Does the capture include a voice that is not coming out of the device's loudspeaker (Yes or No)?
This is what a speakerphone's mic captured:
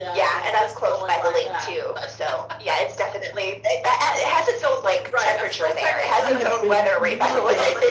Yes